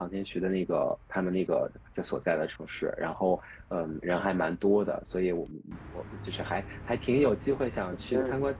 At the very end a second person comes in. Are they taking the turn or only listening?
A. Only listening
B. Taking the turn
A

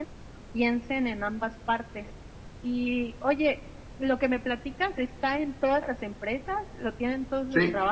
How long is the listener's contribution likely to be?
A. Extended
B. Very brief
A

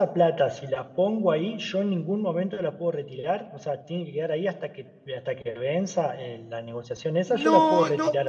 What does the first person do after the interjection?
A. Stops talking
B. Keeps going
A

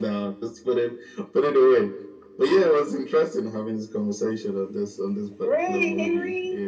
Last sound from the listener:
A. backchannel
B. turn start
B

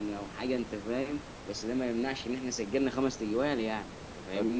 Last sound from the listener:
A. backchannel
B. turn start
B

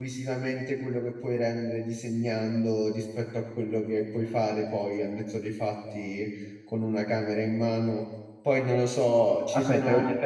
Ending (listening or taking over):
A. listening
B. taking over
B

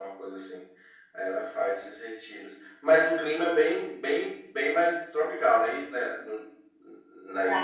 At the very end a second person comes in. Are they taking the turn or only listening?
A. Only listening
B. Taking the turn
B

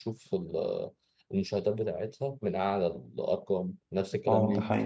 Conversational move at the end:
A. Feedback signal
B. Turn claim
B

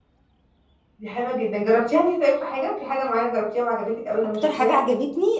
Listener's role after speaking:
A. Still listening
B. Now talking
B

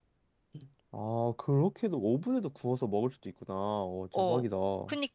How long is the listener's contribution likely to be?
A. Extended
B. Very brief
A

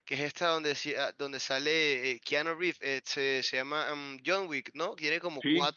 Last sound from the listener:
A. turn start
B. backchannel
B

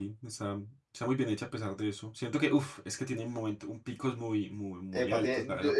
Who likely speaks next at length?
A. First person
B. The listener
B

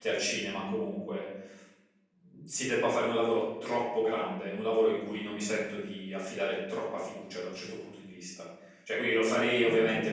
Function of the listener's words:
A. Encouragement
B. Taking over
A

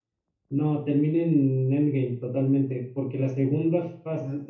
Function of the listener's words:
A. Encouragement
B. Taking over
B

